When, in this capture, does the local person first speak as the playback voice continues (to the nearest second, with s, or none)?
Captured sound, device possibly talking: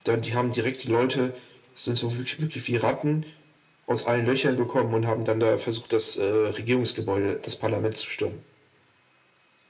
none